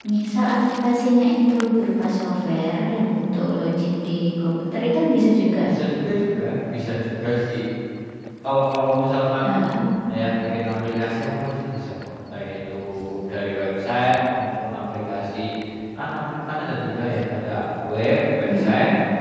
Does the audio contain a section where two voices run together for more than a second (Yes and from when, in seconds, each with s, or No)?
No